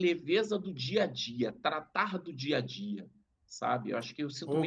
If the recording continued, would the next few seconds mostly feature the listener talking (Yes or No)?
Yes